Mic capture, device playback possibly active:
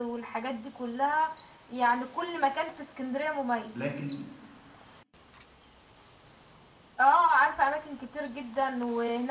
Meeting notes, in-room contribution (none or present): present